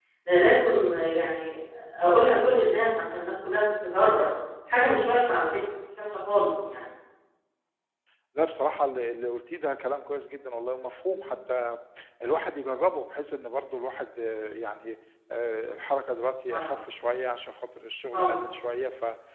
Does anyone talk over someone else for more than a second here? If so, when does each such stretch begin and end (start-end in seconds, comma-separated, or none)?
none